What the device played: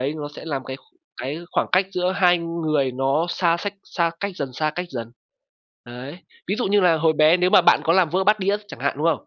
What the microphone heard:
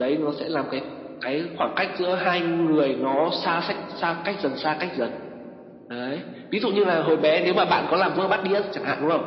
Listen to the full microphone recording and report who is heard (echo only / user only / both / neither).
echo only